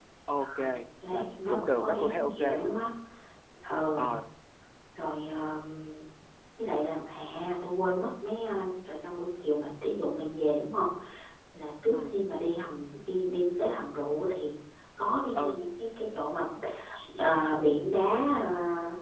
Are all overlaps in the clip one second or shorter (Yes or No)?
No